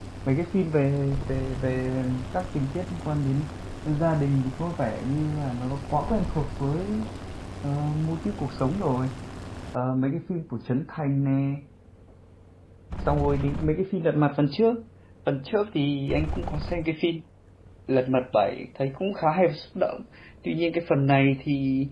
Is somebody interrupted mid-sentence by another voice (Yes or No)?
No